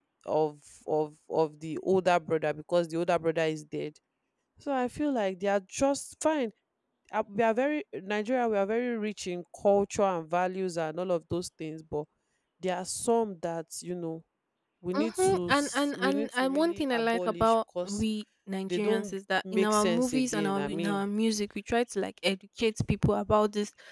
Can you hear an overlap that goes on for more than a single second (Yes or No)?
Yes